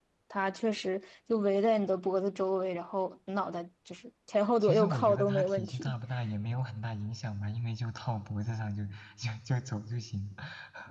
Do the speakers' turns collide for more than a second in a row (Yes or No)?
Yes